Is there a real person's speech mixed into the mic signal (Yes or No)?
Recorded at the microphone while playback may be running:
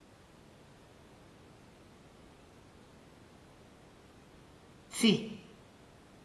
Yes